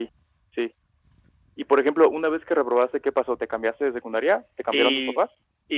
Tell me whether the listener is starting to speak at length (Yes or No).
Yes